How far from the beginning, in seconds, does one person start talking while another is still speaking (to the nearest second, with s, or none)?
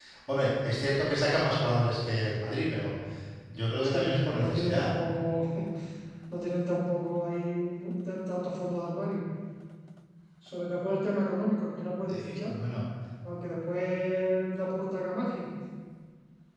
4 s